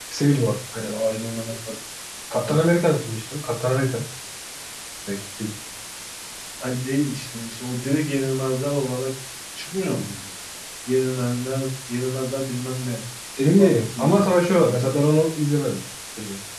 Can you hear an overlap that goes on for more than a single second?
Yes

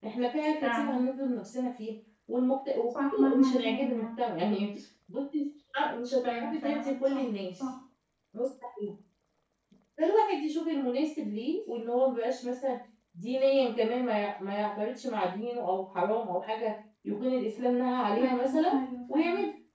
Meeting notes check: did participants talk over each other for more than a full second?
Yes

